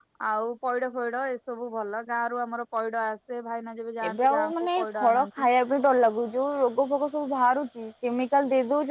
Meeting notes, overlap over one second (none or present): present